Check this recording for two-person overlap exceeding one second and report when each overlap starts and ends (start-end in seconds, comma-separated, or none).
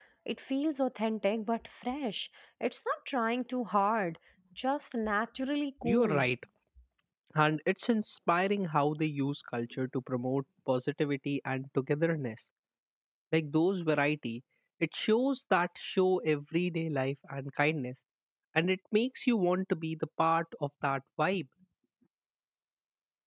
none